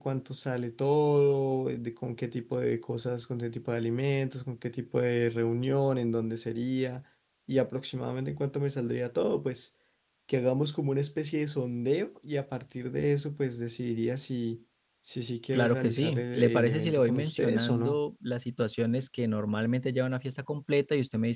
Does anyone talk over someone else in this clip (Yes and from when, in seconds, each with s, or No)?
Yes, from 15.5 s